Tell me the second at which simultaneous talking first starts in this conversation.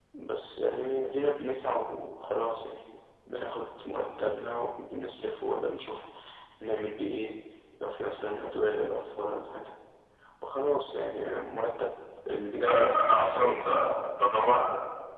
12.7 s

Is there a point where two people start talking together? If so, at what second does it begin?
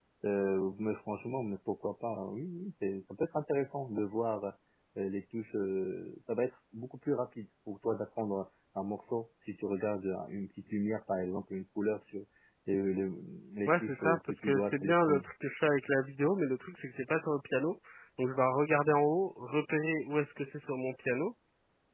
13.7 s

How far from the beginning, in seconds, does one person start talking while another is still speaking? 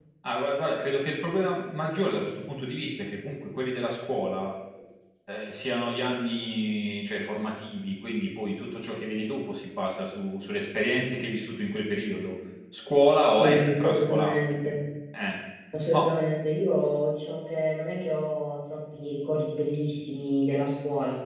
13.3 s

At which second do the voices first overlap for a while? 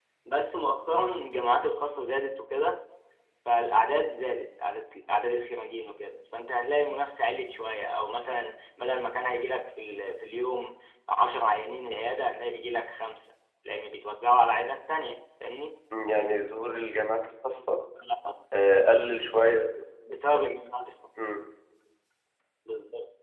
none

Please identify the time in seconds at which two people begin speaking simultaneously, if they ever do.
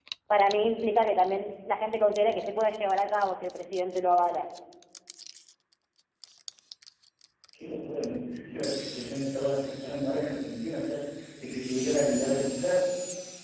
none

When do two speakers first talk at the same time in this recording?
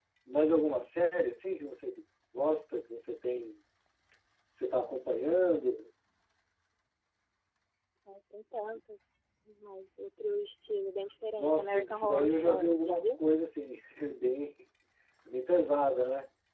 11.3 s

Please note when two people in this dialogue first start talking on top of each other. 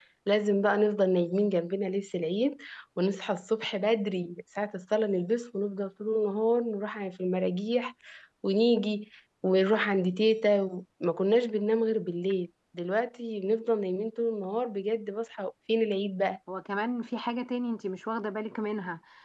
none

